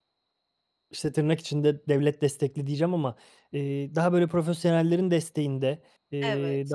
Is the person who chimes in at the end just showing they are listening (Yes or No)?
Yes